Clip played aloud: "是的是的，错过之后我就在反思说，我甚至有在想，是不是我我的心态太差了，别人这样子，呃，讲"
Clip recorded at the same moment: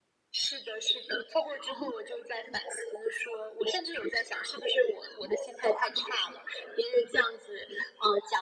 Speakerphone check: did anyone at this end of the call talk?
No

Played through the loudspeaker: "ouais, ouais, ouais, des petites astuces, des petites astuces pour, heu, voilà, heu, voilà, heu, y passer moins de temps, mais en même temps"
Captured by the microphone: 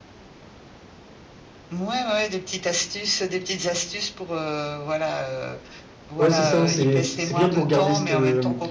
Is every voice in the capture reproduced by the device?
No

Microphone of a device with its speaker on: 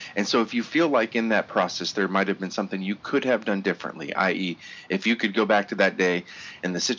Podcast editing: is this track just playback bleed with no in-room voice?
Yes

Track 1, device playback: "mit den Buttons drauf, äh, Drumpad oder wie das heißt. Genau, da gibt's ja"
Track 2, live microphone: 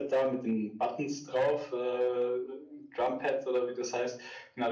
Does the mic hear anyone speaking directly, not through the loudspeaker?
No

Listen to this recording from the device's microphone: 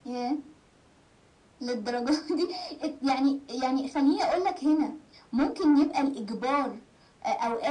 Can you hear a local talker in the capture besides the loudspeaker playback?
No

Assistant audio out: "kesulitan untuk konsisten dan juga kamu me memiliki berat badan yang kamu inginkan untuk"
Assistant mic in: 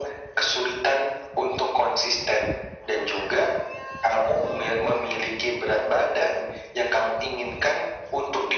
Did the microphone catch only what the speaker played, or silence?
Yes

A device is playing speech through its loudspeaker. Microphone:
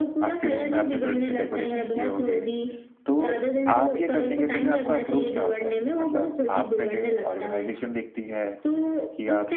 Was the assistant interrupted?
Yes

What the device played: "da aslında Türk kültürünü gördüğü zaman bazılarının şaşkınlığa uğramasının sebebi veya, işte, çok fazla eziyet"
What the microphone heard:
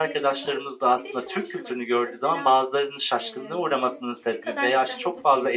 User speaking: Yes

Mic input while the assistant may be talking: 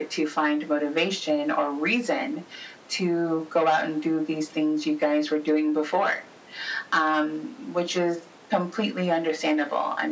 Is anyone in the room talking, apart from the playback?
No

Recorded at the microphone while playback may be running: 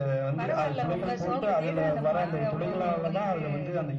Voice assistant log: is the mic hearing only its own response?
No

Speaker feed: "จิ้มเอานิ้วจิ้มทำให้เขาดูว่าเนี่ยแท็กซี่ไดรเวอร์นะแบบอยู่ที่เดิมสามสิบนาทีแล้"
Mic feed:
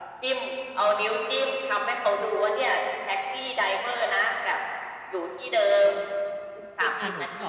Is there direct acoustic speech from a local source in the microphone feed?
Yes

